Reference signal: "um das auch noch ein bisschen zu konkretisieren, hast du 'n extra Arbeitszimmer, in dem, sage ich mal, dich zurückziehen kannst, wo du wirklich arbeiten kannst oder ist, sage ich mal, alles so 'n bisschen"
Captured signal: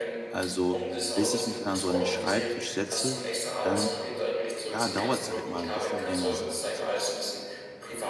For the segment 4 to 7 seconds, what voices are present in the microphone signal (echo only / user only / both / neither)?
both